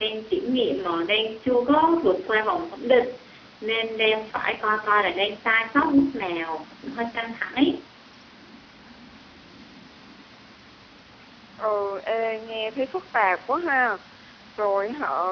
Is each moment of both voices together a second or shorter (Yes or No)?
Yes